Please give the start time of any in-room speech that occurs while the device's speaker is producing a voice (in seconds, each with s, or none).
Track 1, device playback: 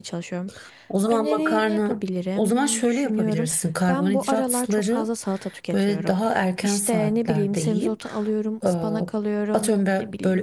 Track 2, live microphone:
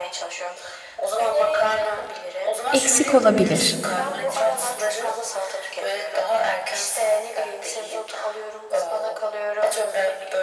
2.7 s